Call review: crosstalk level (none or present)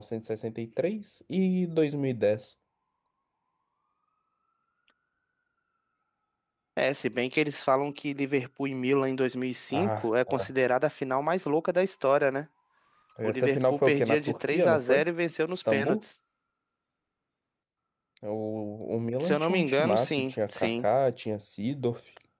present